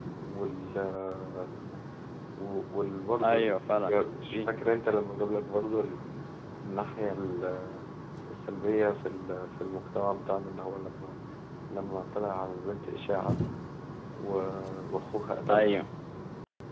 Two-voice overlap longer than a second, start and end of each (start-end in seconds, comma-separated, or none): 3.2-4.5